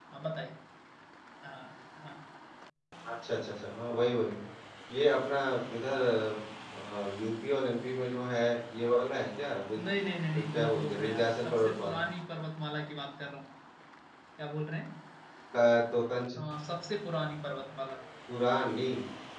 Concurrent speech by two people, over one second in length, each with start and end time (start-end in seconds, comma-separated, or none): 10.5-12.0